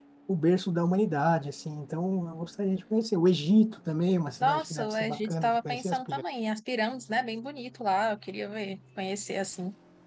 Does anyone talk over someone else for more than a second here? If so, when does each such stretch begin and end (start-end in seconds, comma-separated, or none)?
4.4-6.2